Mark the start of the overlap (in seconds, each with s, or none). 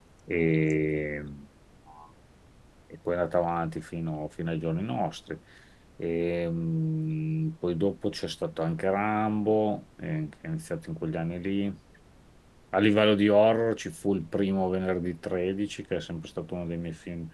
none